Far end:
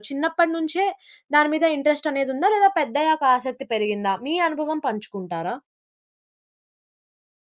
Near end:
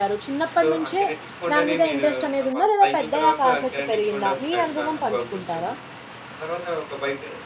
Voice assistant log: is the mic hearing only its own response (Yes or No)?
No